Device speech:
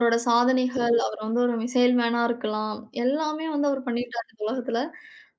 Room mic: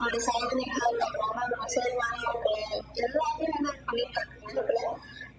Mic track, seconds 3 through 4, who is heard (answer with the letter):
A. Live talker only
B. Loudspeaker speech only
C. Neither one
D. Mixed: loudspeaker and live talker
B